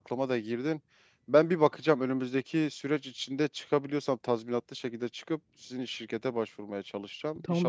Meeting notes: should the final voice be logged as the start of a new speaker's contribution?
Yes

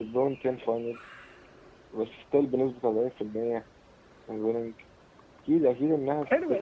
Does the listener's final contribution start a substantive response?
Yes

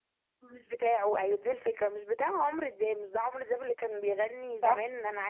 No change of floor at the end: Yes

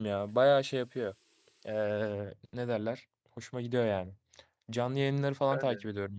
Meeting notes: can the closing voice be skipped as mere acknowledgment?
Yes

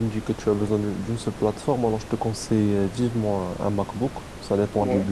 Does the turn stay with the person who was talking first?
Yes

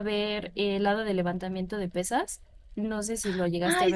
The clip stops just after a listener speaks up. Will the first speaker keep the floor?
No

